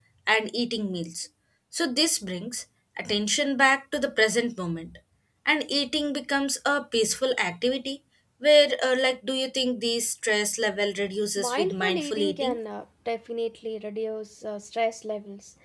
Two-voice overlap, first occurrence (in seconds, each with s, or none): 11.4 s